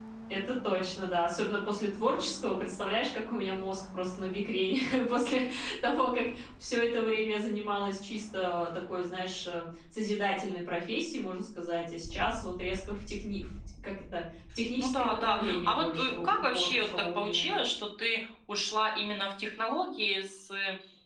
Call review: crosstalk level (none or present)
present